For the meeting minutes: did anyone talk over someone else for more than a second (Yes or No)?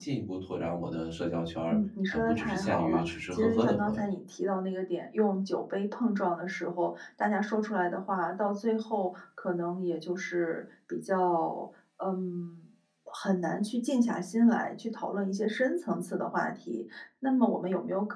Yes